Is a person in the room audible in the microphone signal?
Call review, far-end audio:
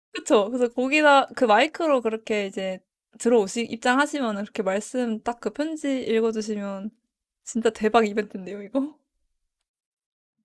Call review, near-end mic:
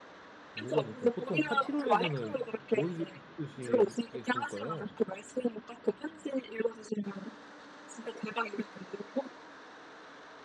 Yes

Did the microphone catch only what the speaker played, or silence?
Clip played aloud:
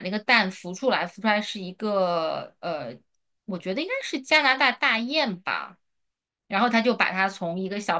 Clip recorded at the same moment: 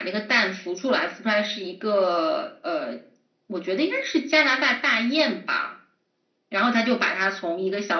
Yes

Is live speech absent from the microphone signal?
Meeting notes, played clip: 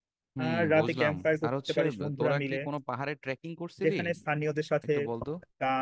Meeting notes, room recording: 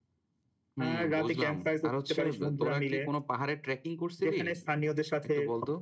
Yes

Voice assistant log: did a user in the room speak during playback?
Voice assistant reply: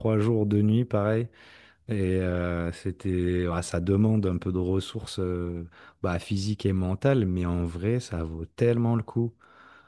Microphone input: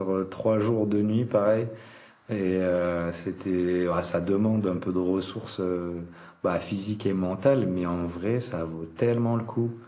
No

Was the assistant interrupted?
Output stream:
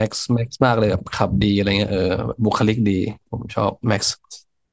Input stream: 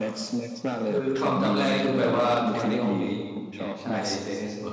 Yes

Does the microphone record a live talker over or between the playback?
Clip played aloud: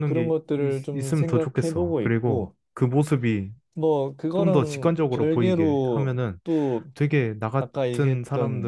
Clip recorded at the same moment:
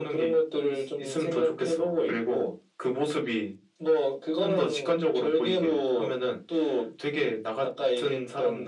No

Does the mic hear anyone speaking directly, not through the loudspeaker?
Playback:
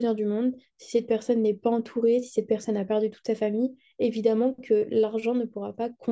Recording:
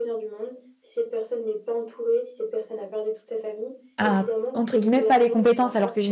Yes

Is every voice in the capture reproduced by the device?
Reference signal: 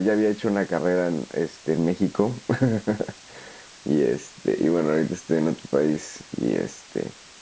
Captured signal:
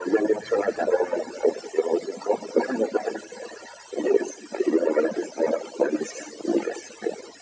Yes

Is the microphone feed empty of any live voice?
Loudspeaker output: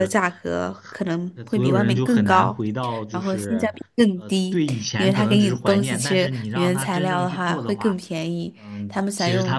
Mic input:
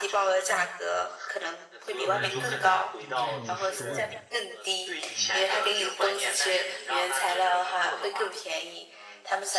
No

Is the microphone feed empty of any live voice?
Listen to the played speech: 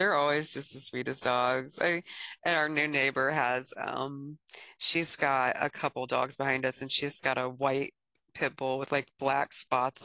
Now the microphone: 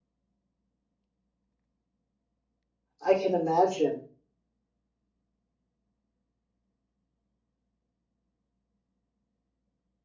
No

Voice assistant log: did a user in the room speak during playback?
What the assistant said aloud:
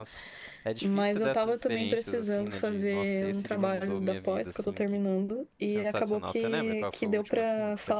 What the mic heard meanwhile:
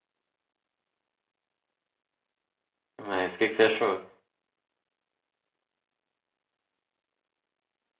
Yes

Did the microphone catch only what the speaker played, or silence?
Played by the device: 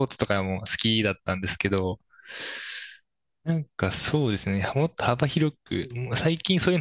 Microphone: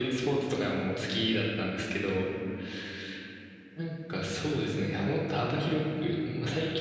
Yes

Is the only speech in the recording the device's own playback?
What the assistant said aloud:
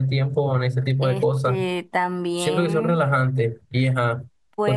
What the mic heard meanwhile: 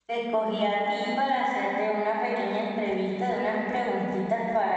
No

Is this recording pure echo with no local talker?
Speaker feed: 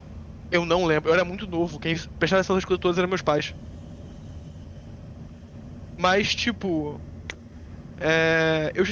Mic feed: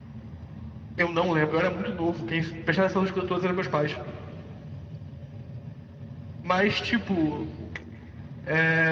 Yes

